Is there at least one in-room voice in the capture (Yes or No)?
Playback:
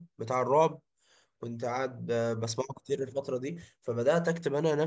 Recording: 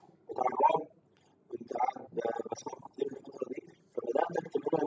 No